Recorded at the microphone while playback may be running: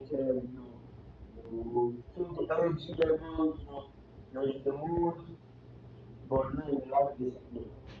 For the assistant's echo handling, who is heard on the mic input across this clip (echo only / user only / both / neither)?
echo only